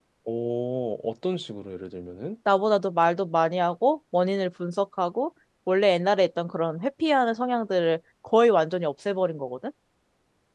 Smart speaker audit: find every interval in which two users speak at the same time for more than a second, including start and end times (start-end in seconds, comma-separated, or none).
none